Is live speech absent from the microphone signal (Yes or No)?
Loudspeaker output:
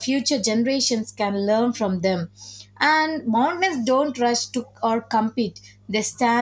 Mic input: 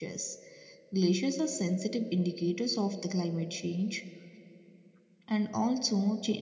No